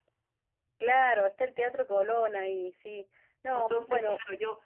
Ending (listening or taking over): taking over